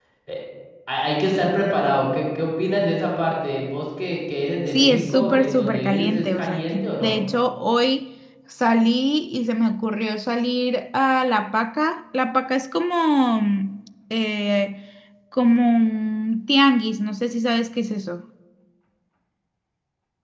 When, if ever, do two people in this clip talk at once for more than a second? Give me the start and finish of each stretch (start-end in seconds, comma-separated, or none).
4.7-7.2